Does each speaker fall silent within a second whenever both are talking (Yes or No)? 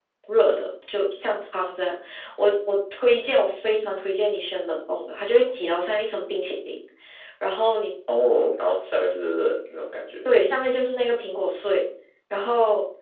Yes